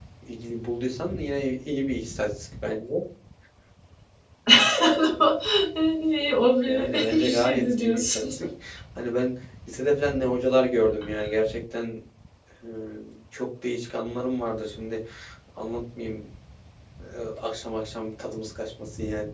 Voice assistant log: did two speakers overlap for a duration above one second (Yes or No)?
Yes